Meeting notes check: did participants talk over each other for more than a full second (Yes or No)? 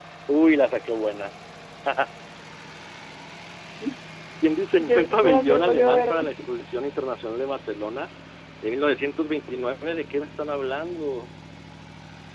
Yes